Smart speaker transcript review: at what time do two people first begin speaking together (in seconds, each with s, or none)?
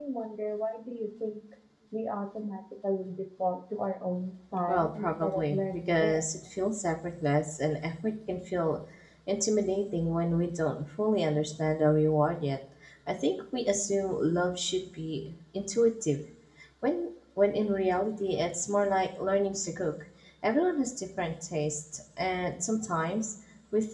4.7 s